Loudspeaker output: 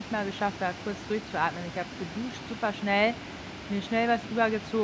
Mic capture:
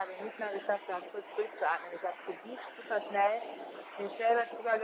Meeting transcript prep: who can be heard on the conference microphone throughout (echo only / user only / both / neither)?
echo only